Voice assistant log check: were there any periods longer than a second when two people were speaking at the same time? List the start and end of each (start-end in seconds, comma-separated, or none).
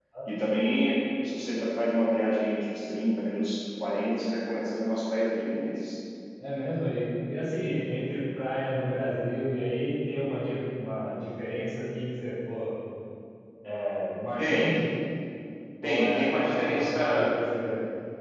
15.8-17.3